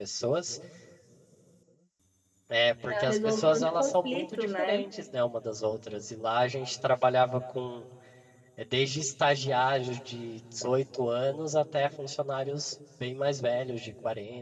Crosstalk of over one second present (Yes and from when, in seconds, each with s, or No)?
Yes, from 2.8 s